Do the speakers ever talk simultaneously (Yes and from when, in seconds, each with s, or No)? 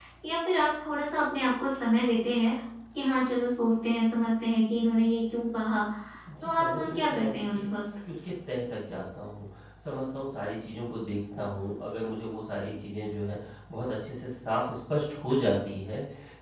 Yes, from 6.4 s